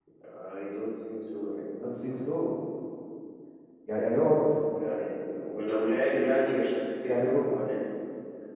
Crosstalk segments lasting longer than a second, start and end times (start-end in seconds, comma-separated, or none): none